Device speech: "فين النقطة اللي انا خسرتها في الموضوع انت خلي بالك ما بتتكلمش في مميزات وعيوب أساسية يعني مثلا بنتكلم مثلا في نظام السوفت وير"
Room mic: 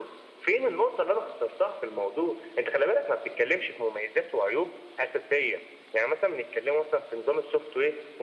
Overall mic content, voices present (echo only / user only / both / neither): echo only